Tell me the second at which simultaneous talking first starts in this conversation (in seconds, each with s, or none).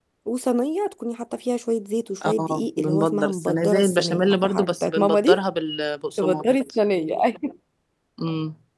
2.2 s